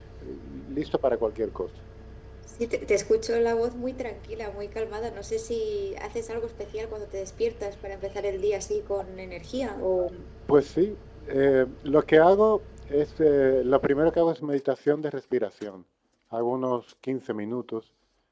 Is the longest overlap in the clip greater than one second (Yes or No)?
No